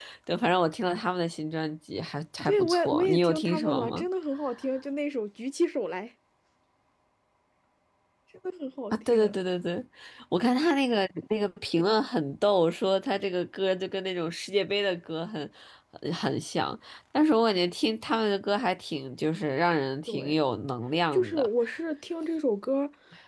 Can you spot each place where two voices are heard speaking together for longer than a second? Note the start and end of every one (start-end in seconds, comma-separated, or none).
2.5-4.0